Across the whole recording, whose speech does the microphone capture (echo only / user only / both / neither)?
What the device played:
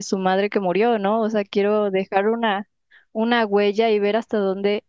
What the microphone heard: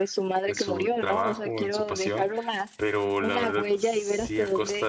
both